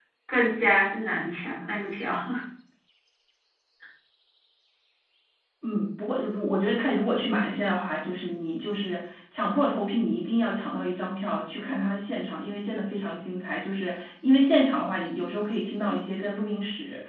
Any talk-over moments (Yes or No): No